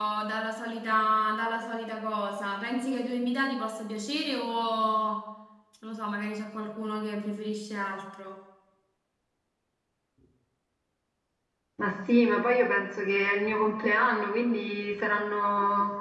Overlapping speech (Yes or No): No